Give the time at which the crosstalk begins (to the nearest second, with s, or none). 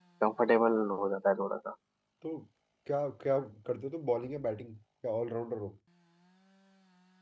none